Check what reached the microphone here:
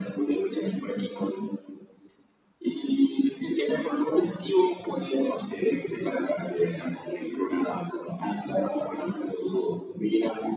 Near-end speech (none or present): none